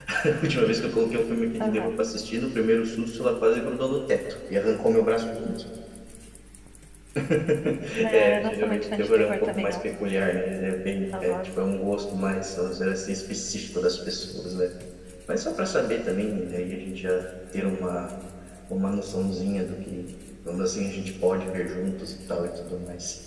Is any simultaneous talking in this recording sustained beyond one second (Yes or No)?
Yes